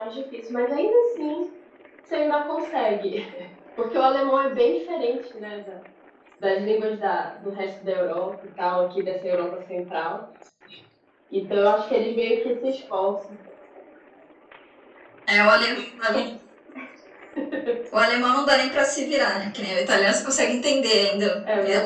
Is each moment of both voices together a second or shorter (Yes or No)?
Yes